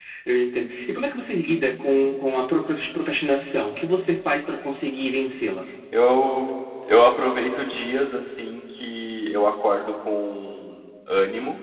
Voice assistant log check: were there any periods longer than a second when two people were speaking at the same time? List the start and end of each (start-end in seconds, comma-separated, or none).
none